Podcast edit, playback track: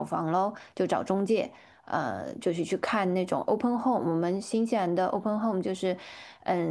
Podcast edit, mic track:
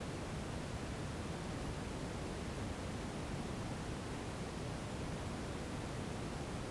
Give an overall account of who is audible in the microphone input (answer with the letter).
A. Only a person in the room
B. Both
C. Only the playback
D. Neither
D